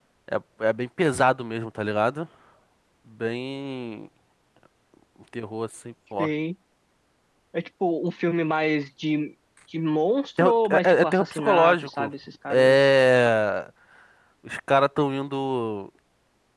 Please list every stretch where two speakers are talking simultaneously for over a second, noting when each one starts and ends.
10.4-12.1

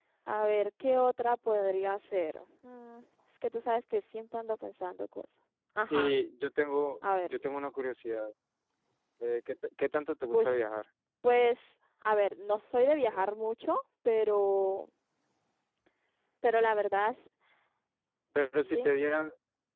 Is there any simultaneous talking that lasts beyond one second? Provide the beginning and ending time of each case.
none

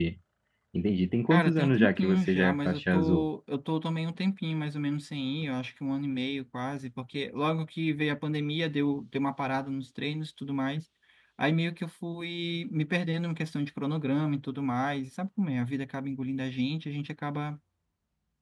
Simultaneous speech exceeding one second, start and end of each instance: 1.3-3.3

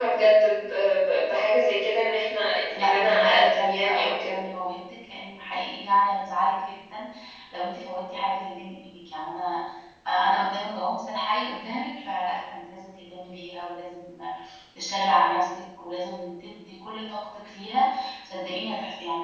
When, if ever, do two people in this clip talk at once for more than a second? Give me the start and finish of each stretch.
2.8-4.4

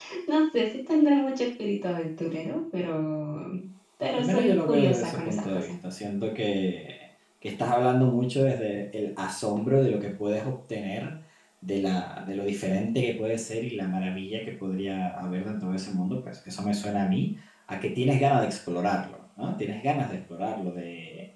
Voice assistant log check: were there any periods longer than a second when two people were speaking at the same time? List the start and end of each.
4.2-5.7

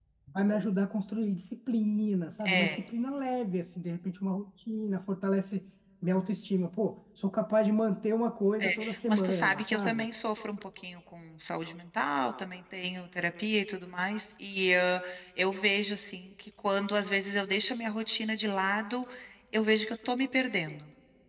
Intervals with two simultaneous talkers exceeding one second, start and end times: 8.6-10.1

